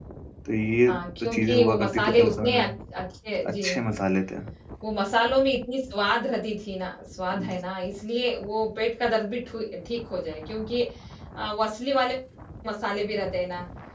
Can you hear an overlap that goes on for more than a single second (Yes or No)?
Yes